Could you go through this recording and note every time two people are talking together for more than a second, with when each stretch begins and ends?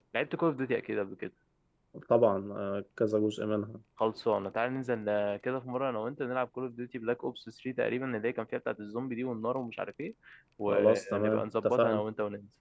10.7-12.0

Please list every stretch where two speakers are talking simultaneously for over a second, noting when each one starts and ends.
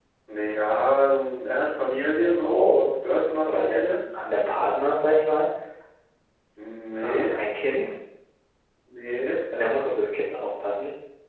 1.6-2.8

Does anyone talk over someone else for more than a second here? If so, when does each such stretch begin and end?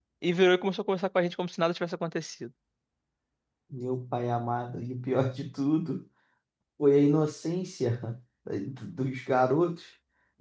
none

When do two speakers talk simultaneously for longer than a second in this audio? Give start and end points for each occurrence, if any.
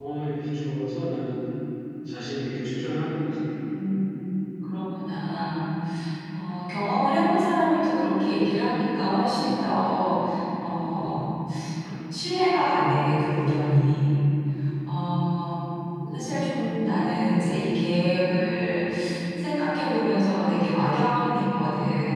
none

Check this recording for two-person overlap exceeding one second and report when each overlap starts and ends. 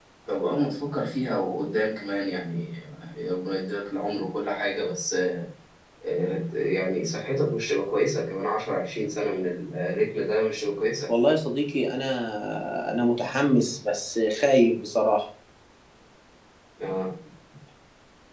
none

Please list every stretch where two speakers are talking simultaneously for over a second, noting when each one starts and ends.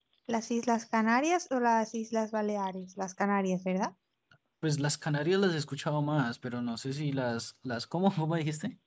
none

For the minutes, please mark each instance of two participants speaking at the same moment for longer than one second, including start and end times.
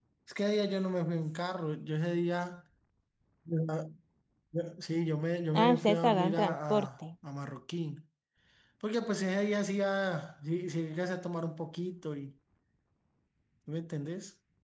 5.5-6.9

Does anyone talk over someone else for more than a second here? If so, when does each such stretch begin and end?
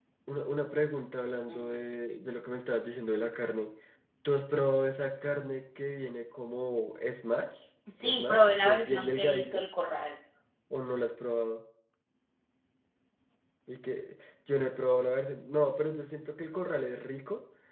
8.0-9.6

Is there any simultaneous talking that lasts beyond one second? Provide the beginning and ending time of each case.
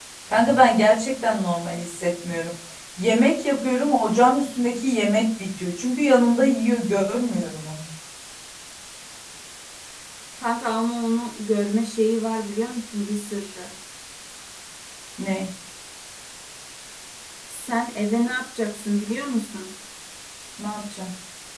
none

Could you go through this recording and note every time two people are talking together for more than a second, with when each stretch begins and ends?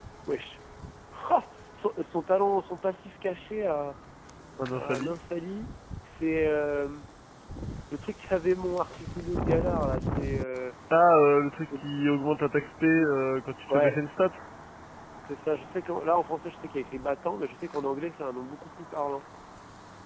none

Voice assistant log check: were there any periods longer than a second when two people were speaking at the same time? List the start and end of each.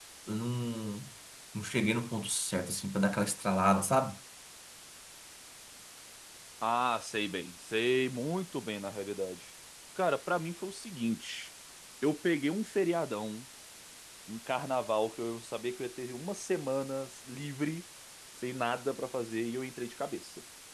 none

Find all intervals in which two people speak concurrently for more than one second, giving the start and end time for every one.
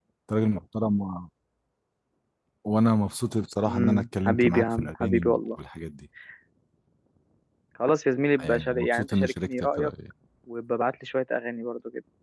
3.6-5.4, 8.4-9.9

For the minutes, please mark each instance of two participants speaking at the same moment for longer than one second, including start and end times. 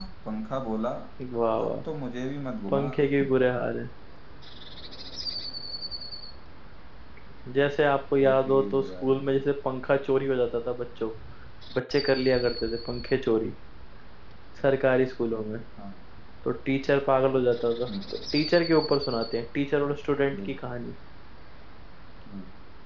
8.2-9.4

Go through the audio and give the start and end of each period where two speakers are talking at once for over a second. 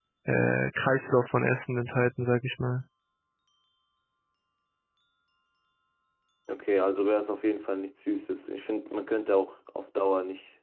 none

